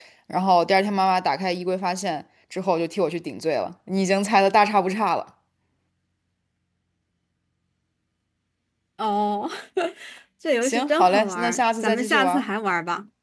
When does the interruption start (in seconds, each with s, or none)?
10.6 s